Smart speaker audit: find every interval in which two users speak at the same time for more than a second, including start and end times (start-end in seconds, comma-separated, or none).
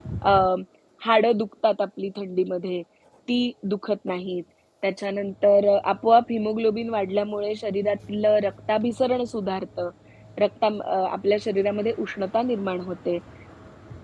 none